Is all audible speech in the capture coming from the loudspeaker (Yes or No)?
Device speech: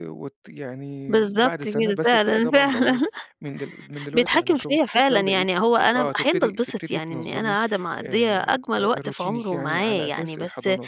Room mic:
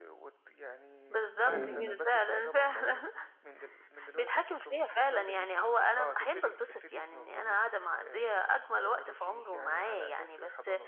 No